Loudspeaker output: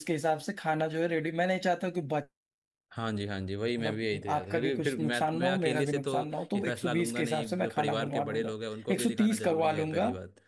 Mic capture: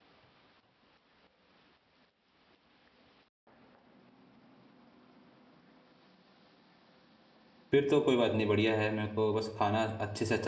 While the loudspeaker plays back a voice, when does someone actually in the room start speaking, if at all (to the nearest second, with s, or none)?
8 s